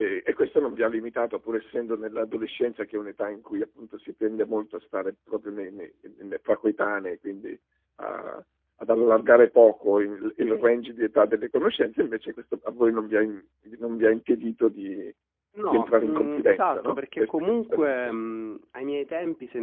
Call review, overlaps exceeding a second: present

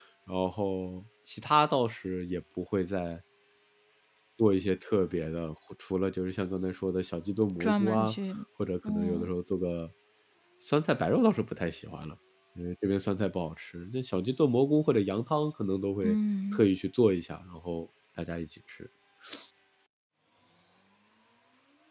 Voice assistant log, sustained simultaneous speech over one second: none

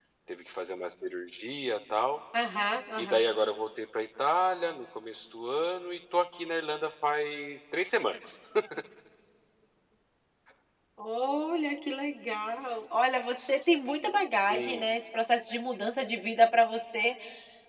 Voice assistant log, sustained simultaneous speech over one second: none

